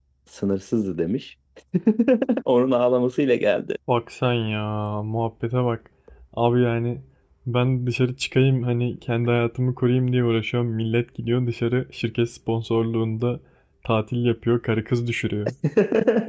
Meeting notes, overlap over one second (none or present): none